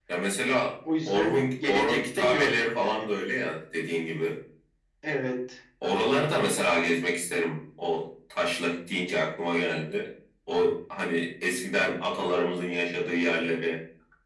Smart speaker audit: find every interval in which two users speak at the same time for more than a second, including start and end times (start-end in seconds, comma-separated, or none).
1.1-3.0